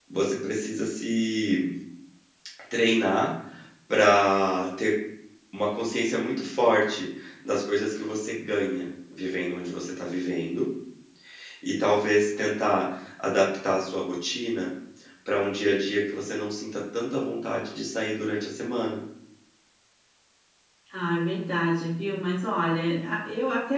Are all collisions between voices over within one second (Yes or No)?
Yes